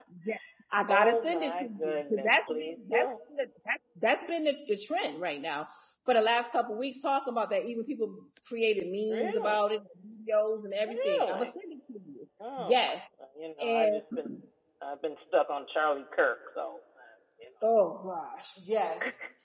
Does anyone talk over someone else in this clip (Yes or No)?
Yes